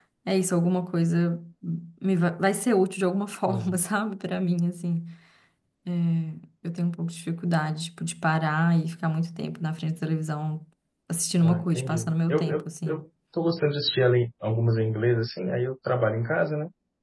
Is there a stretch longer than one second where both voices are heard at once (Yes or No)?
Yes